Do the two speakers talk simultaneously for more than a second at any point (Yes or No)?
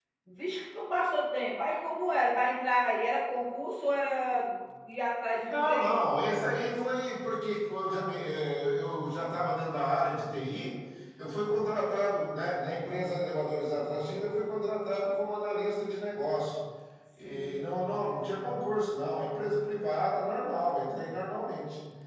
No